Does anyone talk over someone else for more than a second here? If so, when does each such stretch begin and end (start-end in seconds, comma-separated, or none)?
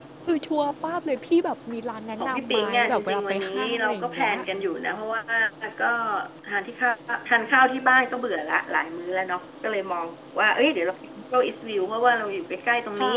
2.2-4.3